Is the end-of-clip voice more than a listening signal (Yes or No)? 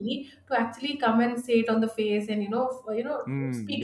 Yes